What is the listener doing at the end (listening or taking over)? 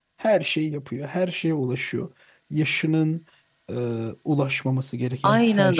taking over